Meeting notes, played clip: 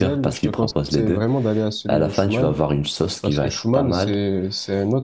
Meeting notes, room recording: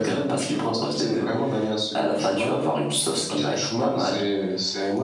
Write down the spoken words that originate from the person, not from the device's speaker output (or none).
none